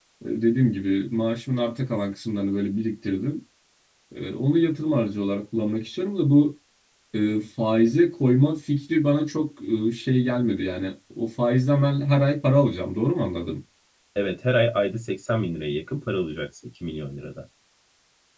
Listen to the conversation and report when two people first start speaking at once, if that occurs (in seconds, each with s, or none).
none